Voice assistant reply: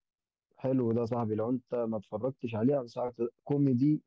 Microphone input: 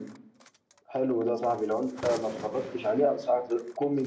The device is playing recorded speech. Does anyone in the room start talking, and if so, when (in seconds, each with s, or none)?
none